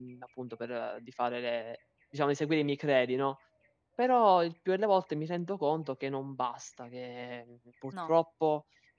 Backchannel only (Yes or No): Yes